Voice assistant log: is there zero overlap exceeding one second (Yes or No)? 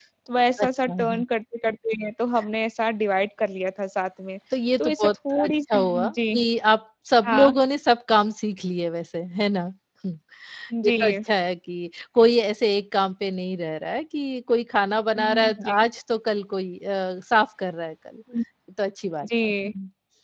No